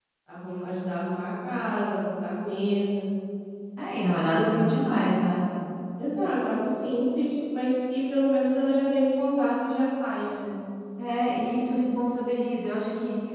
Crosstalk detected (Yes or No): No